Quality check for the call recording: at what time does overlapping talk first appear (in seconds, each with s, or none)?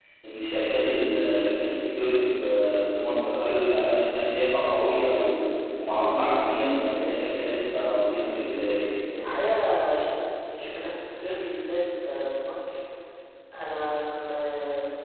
none